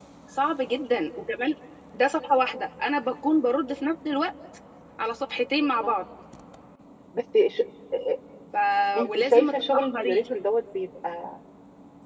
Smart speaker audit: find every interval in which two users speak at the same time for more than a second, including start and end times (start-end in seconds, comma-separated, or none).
9.0-10.2